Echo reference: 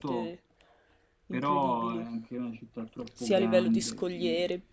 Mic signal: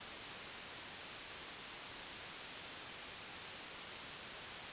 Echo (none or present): none